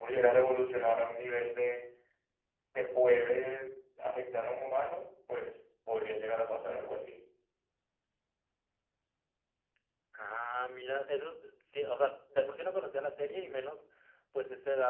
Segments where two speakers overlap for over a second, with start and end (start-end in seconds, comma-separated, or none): none